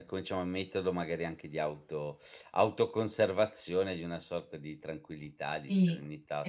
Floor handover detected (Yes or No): Yes